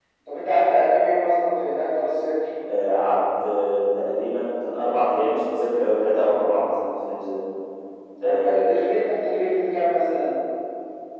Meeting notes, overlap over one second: none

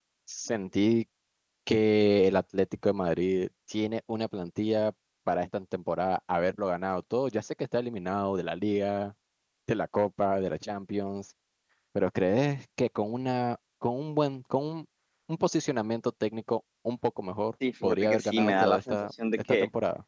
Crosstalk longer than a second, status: present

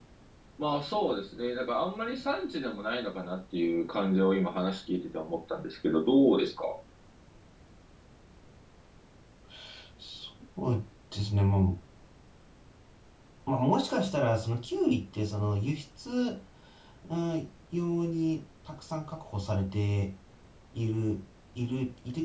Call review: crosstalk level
none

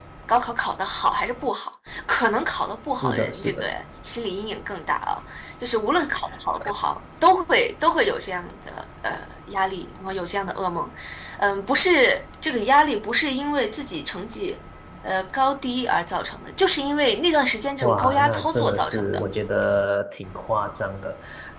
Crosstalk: present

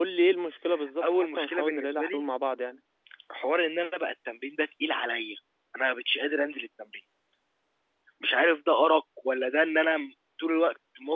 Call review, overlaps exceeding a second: present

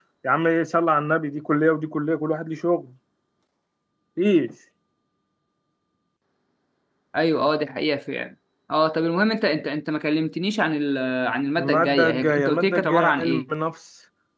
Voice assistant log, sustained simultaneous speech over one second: present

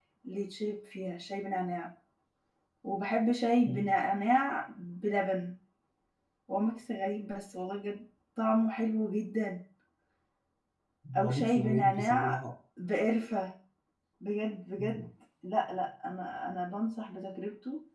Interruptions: present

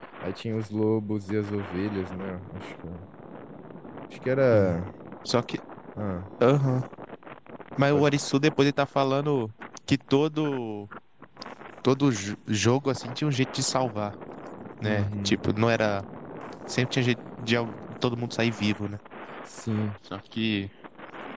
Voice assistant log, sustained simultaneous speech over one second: none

